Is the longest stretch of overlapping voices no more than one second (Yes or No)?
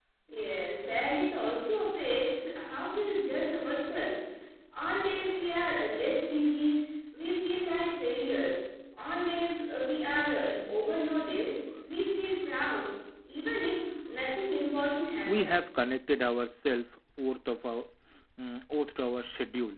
Yes